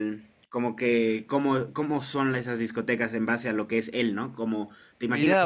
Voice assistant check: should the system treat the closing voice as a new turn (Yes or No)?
Yes